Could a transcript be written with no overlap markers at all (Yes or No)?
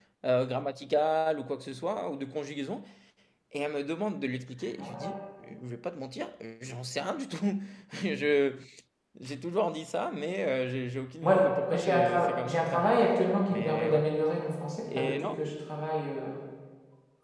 No